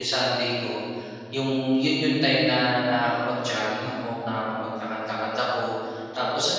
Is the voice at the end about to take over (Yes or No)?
No